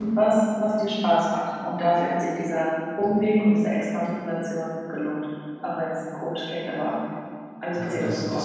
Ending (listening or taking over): taking over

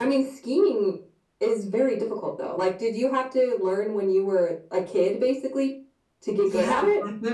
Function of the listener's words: taking over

